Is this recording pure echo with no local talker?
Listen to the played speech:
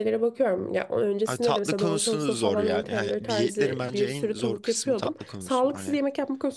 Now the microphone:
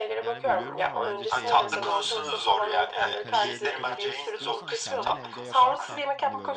No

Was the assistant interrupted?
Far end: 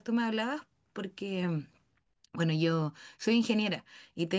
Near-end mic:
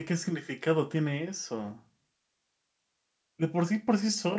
Yes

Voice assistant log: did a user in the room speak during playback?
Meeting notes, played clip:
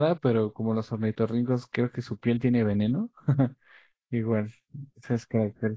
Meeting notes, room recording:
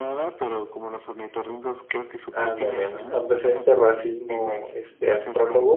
Yes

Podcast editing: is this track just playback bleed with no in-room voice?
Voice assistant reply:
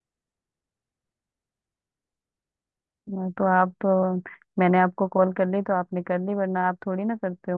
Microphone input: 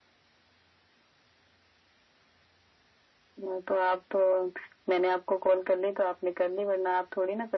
Yes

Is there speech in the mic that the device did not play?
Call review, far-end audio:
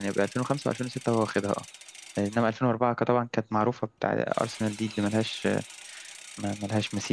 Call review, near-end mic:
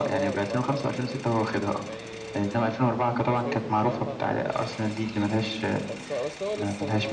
Yes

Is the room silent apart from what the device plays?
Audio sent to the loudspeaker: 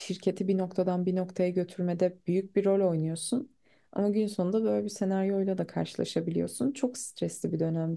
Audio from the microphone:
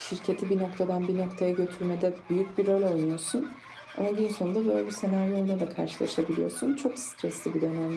Yes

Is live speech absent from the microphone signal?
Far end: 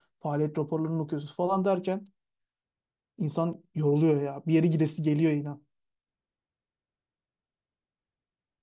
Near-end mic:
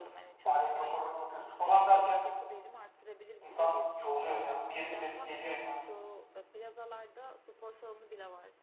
No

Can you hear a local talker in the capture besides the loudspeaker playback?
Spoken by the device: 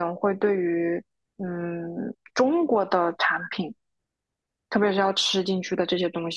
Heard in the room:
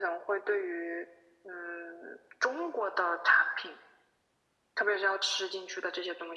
No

